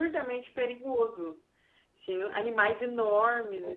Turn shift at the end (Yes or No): No